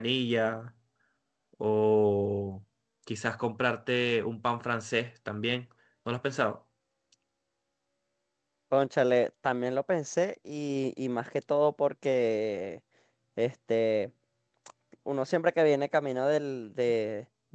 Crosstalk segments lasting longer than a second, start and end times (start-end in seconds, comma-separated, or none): none